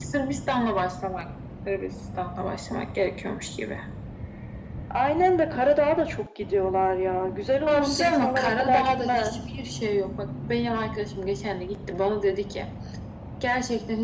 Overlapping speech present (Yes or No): Yes